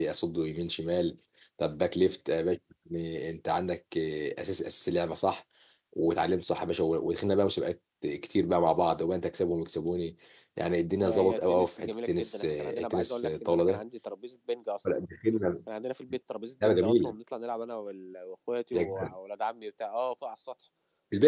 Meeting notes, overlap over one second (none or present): present